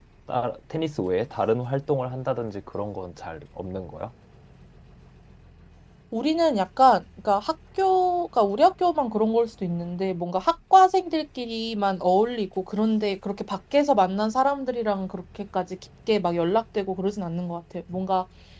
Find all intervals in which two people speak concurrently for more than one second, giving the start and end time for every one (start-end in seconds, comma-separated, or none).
none